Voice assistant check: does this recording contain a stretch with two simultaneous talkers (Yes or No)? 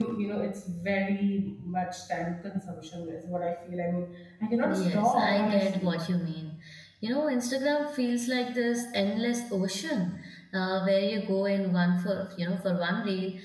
Yes